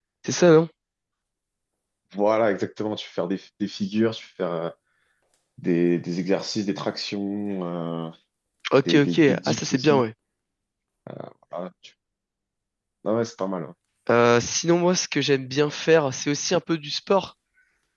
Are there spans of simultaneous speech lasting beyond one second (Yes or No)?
Yes